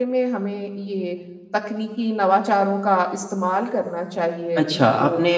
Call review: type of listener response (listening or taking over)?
taking over